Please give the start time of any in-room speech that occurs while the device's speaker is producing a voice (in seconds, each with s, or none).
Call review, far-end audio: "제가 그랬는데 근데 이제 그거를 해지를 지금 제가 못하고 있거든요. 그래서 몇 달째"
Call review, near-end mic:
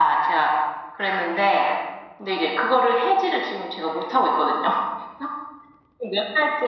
none